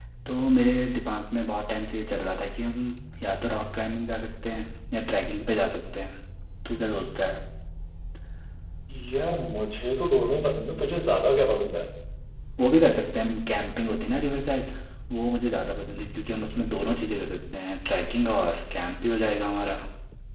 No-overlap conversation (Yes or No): Yes